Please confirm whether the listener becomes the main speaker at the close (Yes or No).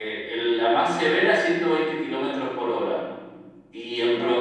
No